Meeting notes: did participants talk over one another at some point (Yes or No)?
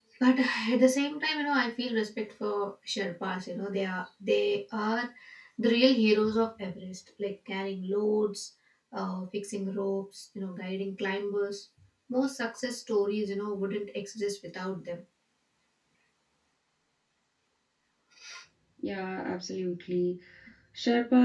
No